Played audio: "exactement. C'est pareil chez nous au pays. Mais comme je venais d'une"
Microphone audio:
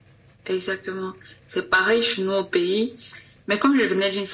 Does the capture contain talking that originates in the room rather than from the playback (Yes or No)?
No